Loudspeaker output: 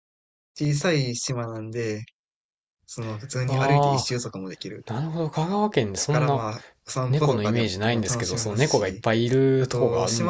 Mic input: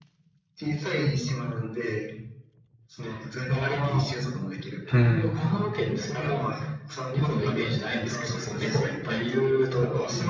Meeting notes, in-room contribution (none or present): present